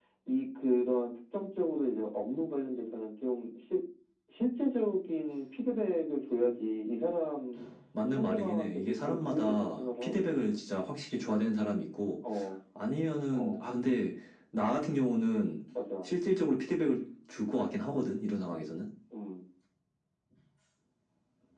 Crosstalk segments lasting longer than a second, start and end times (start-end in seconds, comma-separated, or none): 8.2-10.3